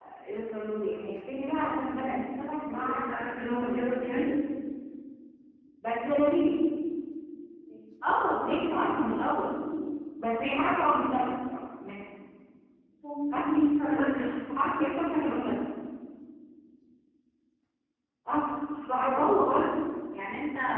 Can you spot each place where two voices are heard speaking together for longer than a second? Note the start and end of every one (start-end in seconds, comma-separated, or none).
none